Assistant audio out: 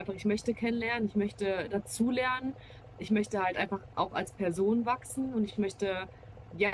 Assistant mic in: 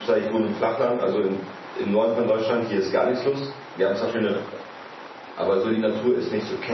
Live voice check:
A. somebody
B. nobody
A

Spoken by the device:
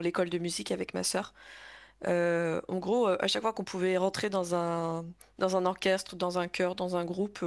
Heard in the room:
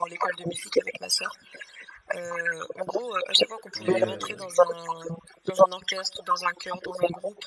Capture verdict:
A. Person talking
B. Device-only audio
A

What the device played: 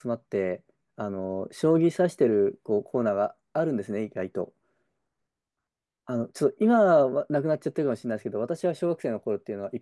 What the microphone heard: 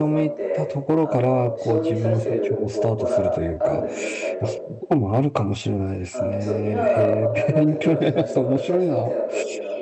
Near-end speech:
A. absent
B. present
B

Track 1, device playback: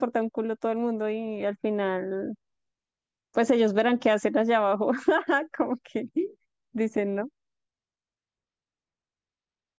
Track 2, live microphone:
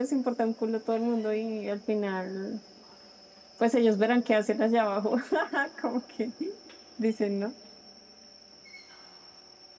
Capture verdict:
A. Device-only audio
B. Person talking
A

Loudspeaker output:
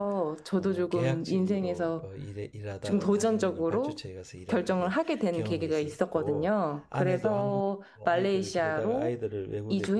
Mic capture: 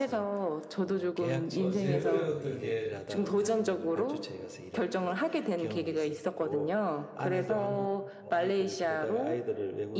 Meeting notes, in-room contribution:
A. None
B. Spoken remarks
B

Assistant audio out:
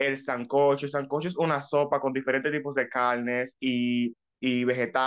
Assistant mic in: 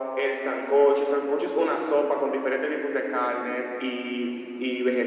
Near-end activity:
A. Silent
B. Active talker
A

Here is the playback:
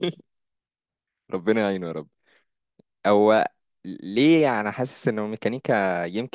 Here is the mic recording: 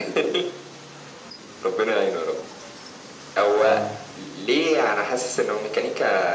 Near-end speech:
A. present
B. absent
A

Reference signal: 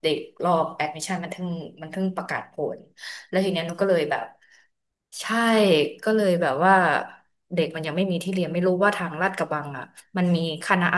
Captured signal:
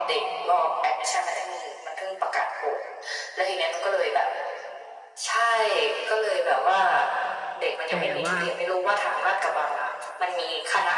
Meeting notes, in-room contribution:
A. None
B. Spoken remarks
B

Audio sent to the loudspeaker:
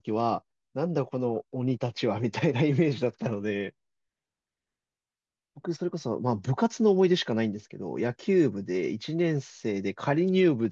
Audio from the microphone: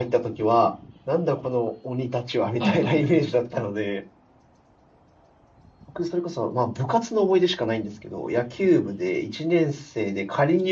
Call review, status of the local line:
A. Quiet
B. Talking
B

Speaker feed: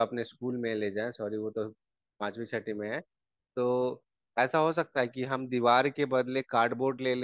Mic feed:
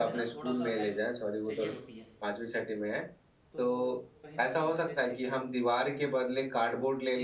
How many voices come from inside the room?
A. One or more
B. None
A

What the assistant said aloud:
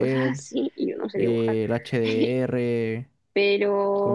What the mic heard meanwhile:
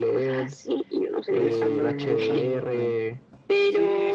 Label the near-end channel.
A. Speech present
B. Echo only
A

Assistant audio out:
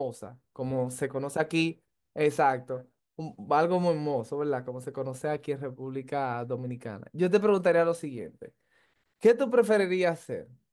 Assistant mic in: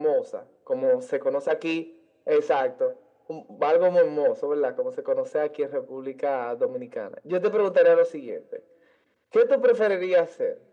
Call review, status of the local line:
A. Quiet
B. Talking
A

